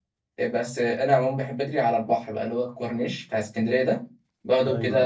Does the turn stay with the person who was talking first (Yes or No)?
Yes